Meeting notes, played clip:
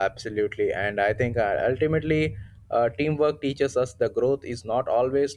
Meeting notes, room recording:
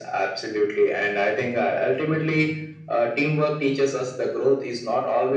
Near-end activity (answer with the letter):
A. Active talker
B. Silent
B